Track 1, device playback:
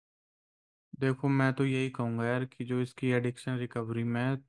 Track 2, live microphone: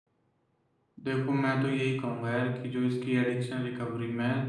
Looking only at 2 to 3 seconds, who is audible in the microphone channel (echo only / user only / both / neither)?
echo only